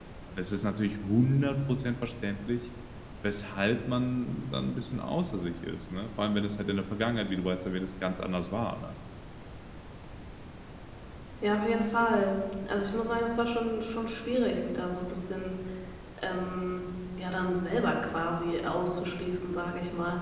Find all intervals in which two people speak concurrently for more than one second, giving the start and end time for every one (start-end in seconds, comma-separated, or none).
none